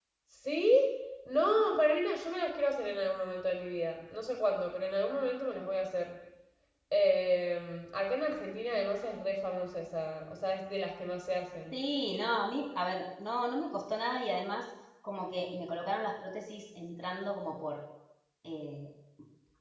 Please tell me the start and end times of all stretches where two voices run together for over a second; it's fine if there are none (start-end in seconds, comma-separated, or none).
none